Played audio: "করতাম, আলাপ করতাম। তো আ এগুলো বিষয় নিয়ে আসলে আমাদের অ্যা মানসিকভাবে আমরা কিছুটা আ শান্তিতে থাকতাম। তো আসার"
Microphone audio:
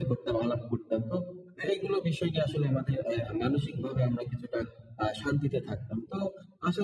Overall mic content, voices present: echo only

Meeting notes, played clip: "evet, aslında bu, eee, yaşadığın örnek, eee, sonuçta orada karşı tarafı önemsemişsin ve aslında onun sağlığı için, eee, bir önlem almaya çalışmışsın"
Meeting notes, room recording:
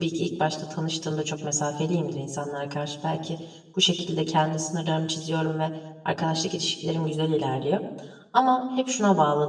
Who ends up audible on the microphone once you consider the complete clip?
user only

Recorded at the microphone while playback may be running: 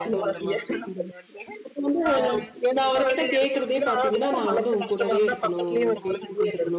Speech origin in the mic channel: both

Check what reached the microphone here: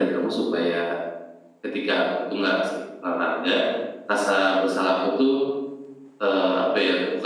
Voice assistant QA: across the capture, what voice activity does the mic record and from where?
echo only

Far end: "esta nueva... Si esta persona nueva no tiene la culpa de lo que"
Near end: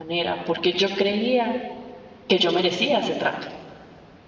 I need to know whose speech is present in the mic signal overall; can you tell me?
user only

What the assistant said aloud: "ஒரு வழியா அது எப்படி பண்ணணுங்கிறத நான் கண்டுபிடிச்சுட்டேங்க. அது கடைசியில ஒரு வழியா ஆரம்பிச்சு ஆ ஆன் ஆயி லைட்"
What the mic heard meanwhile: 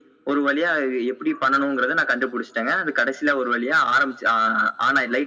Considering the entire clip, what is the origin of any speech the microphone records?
echo only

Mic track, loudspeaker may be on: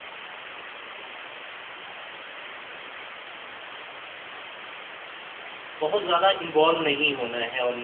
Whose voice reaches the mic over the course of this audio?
user only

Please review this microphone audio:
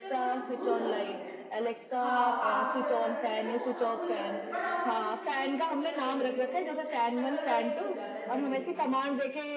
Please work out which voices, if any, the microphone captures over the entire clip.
both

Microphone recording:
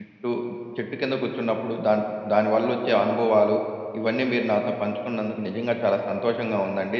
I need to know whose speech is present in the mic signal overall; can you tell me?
user only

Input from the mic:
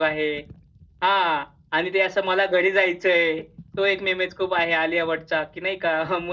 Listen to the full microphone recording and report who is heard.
user only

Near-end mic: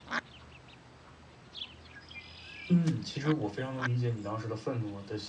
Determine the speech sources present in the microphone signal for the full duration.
user only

